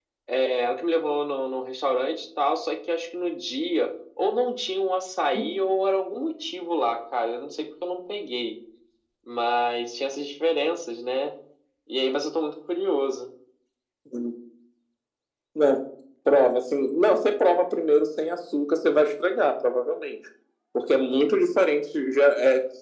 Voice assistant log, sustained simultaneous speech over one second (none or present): none